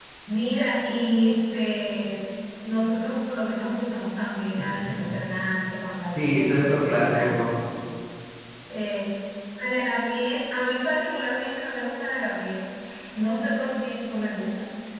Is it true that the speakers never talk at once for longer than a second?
No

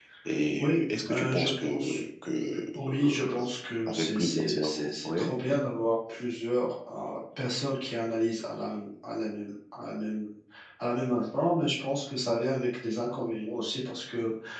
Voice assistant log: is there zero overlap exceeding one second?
No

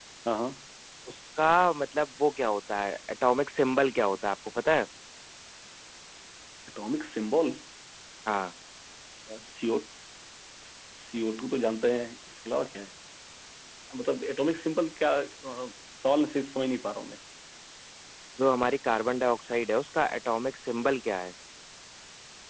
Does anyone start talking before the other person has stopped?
No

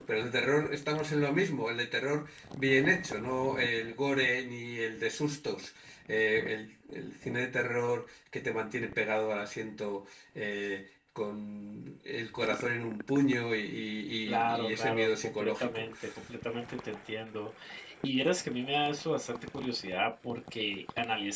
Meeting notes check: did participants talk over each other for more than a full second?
Yes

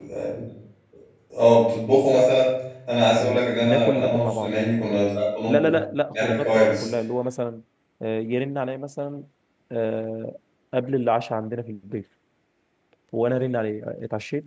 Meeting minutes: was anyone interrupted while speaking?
Yes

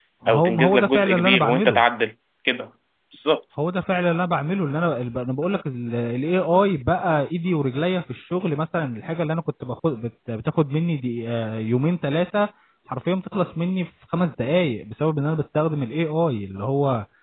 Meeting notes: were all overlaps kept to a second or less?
No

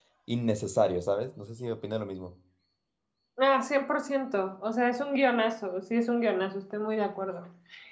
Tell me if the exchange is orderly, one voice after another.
Yes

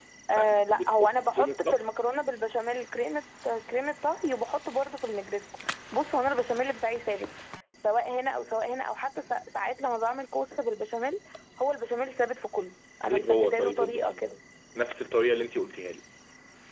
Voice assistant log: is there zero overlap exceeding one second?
No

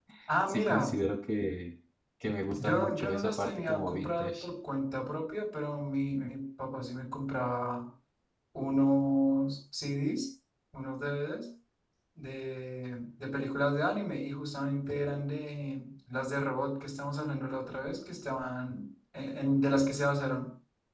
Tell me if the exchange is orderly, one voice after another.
No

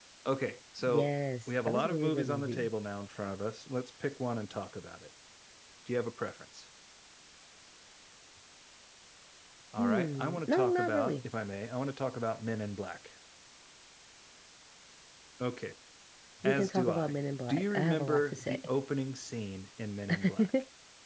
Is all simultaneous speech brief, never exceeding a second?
No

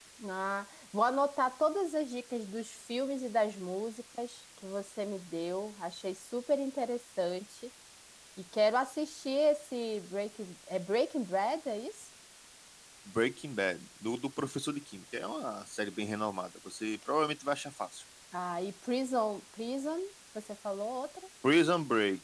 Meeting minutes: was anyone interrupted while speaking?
No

